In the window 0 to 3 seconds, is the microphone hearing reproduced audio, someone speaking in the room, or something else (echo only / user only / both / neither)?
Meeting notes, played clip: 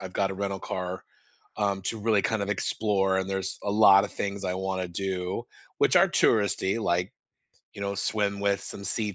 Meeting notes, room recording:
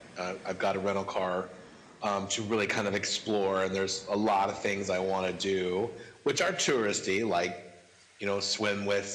echo only